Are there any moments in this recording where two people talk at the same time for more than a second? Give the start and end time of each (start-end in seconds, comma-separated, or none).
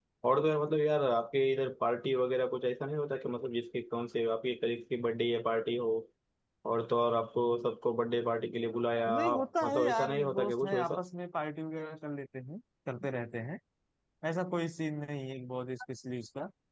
9.1-11.0